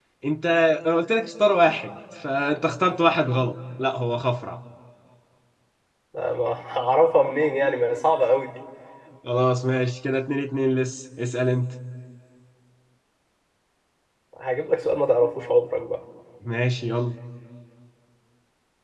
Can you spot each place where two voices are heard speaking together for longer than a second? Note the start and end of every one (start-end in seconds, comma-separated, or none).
none